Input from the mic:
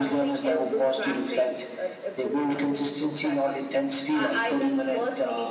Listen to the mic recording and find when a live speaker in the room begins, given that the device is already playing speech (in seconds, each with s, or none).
none